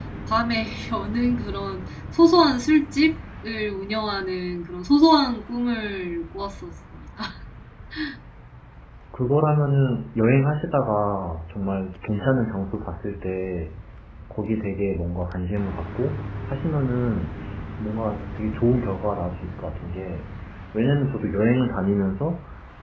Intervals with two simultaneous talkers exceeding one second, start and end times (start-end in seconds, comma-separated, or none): none